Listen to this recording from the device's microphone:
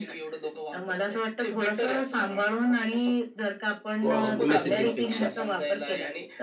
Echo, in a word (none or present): present